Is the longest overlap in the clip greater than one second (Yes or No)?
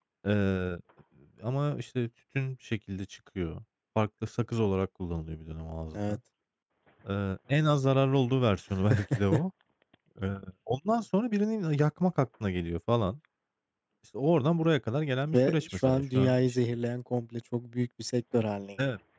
Yes